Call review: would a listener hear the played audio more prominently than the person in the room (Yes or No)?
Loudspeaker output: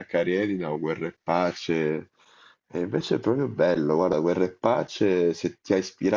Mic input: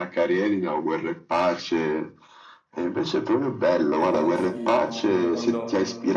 Yes